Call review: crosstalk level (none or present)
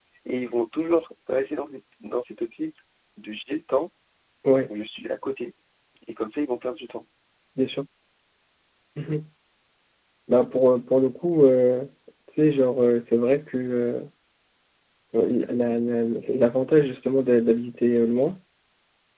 none